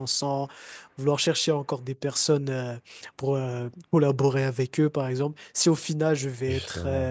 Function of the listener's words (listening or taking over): listening